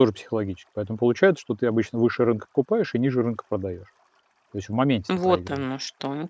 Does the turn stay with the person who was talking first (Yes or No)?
No